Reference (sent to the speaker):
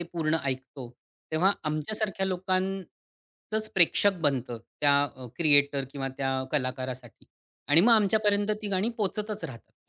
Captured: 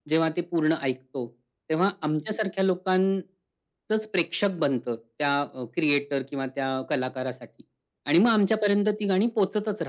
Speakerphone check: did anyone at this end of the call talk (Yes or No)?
No